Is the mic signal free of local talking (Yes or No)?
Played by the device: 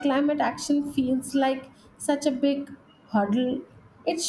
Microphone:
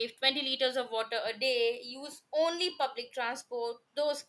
No